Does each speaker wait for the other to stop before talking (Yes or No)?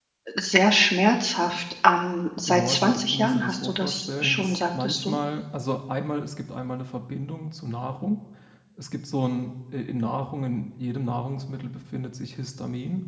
No